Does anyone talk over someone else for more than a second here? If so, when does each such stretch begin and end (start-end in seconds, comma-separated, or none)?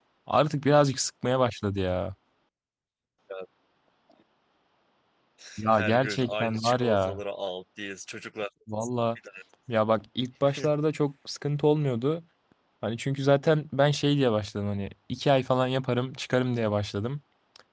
5.7-7.2